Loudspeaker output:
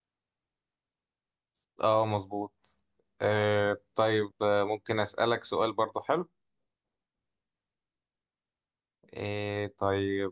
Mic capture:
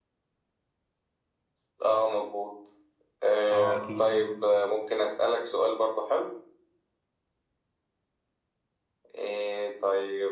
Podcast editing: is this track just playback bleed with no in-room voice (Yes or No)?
No